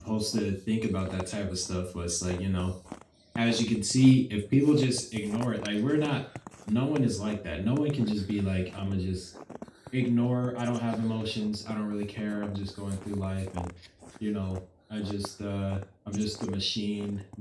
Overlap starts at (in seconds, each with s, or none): none